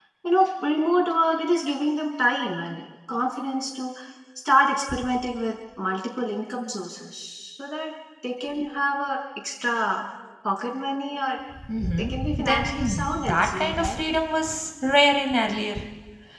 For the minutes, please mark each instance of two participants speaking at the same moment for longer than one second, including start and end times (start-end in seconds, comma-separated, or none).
12.0-14.0